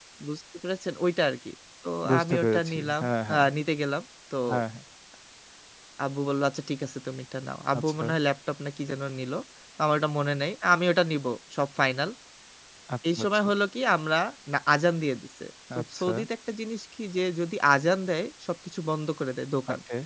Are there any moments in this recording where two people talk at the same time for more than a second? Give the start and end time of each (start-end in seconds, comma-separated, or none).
2.1-3.5